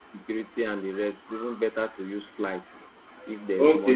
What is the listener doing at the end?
taking over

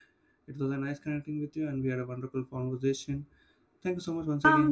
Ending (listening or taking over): taking over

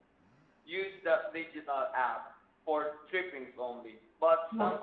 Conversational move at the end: listening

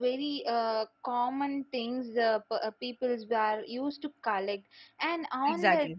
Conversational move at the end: listening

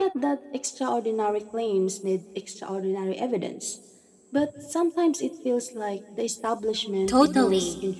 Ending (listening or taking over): taking over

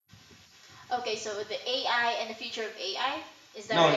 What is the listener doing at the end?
taking over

